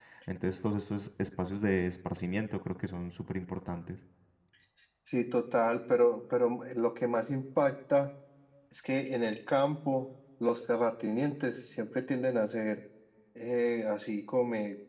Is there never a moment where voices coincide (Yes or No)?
Yes